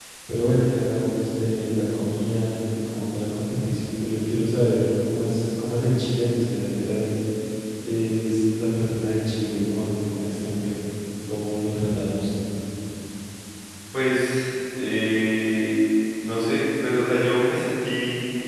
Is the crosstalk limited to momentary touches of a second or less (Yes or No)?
Yes